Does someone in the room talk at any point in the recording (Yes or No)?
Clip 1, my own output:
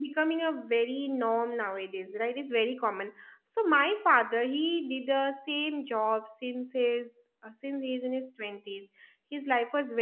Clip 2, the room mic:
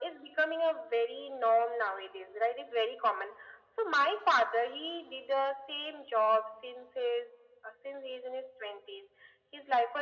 No